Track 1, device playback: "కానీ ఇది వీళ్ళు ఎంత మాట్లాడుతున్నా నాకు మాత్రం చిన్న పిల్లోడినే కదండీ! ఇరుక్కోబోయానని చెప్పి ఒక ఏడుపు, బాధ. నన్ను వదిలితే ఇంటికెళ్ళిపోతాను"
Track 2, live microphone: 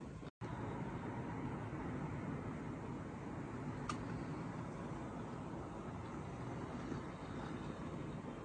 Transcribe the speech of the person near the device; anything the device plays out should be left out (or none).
none